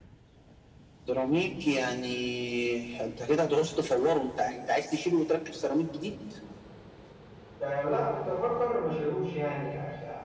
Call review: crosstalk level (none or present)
none